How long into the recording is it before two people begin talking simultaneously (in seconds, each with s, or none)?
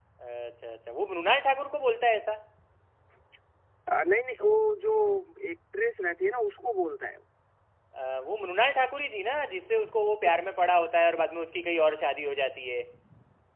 none